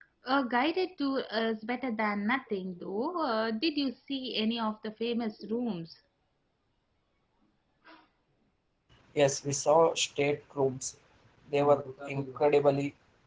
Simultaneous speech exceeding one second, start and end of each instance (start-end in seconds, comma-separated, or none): none